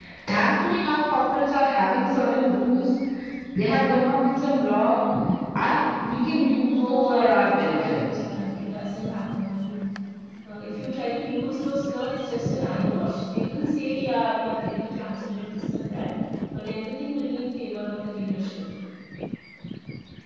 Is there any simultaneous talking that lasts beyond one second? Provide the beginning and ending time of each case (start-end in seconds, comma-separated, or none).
6.6-8.0